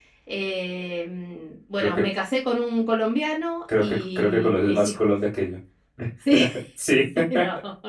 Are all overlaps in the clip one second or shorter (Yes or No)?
No